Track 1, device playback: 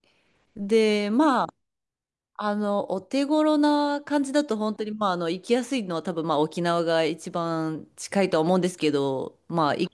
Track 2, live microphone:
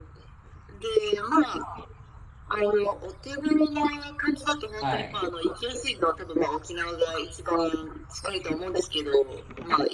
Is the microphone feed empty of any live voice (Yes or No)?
No